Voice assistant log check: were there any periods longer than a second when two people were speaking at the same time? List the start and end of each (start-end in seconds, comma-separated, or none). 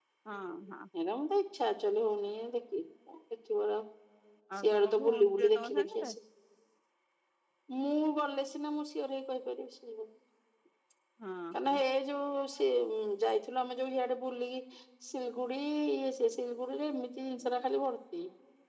4.6-6.1